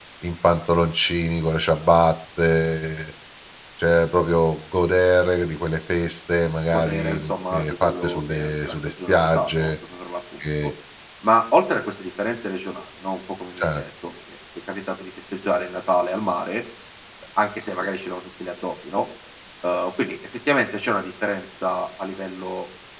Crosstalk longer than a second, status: present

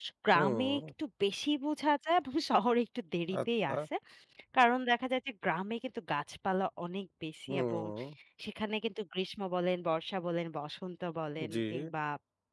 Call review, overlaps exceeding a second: none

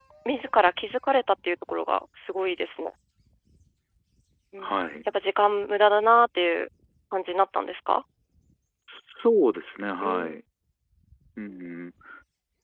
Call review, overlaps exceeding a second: none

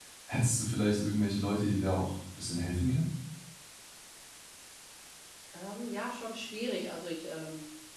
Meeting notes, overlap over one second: none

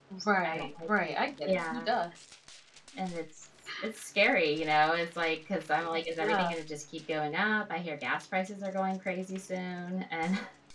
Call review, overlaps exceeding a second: none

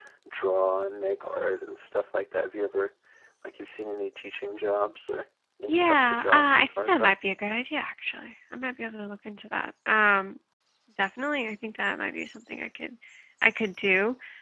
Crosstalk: present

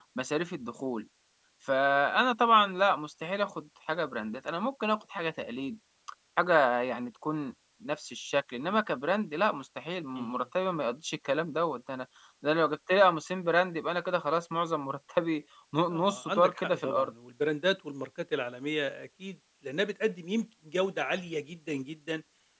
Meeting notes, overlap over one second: present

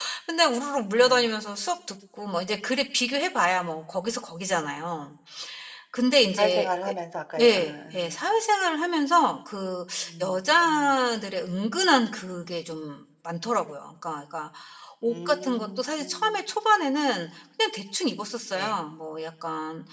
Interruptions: present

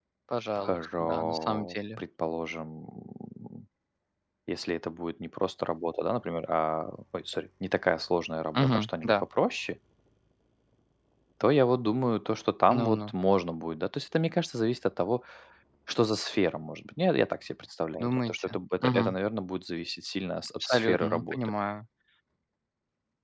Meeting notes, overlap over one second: present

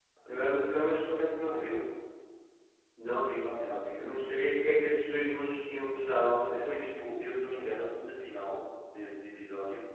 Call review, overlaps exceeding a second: none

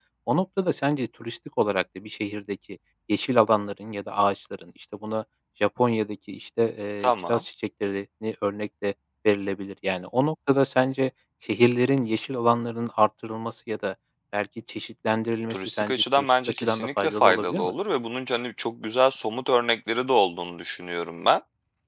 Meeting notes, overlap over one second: present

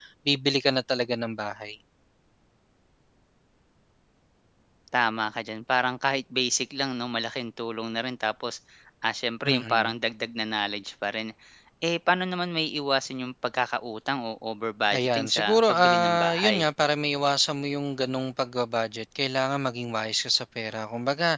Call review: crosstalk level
present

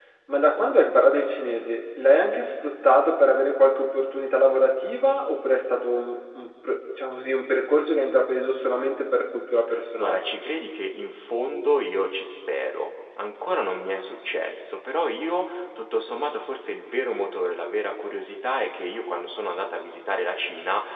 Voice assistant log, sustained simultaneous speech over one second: none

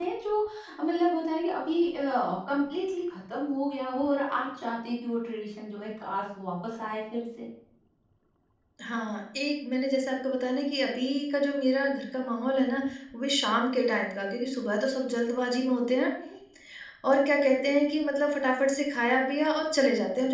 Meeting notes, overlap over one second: none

